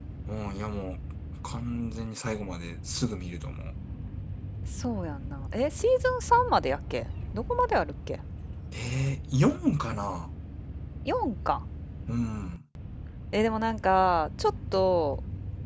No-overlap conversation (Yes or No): Yes